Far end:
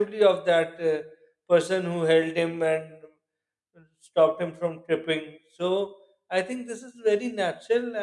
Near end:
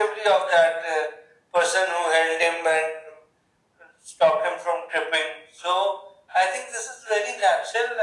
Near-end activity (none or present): none